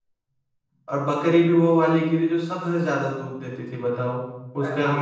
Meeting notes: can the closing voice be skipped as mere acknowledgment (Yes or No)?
Yes